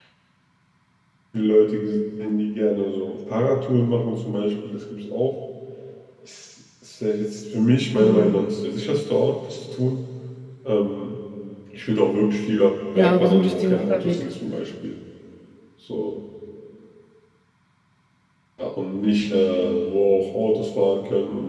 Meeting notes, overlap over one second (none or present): present